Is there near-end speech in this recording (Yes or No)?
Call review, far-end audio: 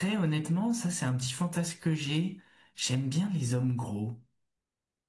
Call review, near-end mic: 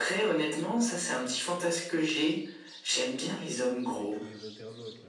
Yes